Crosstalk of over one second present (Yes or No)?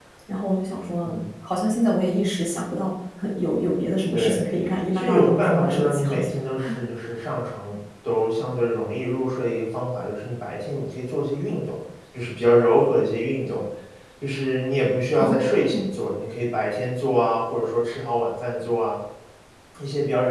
Yes